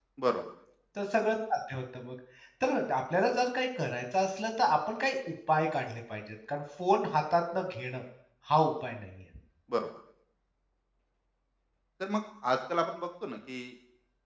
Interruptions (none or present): none